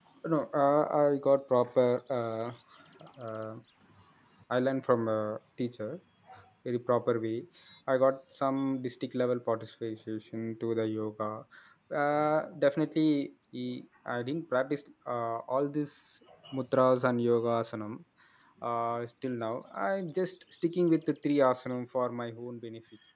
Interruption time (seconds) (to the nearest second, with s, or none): none